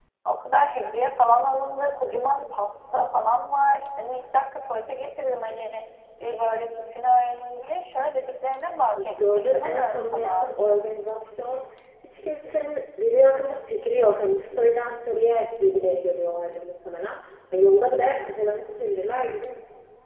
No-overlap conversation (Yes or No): No